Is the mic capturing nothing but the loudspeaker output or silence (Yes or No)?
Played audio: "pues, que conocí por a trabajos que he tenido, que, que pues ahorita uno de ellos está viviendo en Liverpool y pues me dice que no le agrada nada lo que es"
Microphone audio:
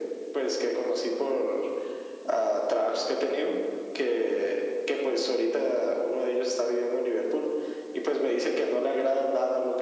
Yes